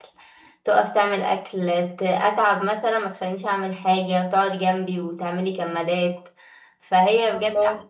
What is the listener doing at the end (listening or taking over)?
listening